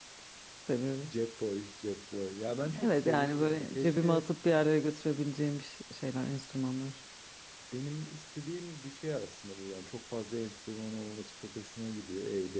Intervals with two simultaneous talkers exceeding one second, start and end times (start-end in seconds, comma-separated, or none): 2.8-4.3